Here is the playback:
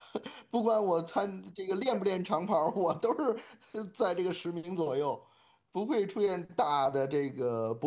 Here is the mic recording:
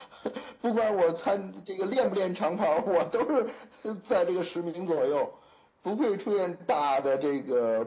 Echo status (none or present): present